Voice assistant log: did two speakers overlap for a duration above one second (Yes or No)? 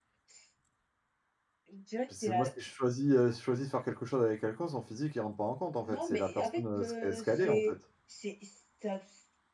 Yes